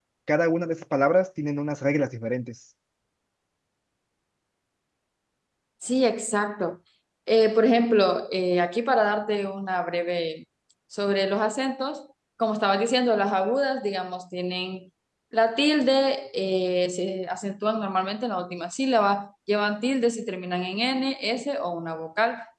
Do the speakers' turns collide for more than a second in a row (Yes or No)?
No